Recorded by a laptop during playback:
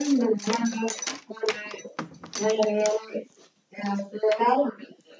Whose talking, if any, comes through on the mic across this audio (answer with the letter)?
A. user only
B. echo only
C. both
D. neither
B